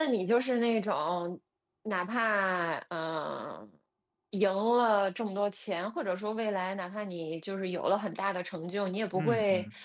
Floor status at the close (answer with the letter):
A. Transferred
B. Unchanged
B